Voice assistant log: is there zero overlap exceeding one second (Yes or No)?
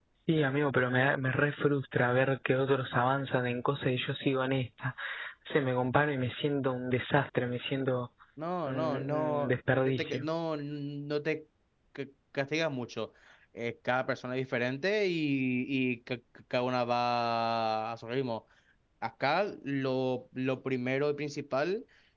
No